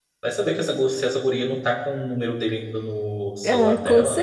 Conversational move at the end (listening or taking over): taking over